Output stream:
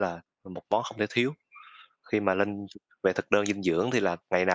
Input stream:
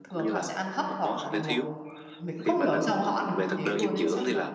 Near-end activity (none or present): present